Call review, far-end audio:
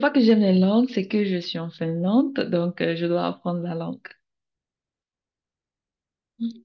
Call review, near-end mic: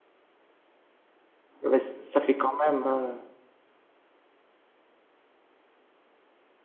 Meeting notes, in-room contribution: present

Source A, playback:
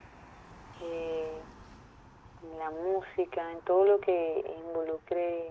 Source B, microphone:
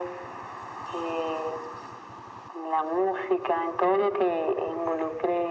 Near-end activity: none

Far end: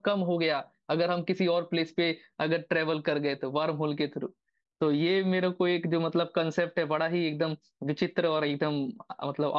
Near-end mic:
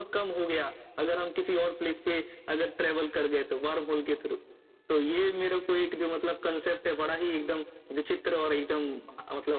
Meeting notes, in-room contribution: none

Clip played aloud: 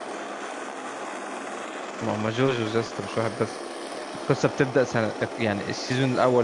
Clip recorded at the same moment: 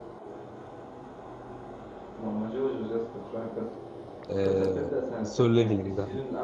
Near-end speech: present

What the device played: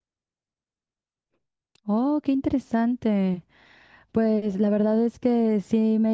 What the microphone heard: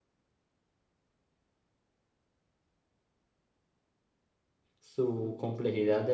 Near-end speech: present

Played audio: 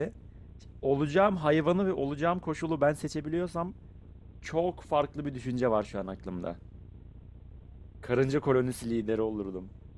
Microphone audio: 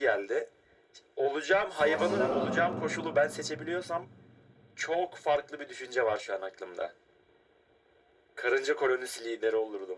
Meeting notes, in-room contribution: present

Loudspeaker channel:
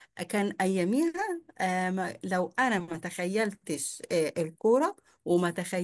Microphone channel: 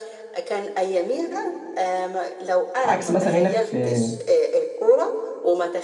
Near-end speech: present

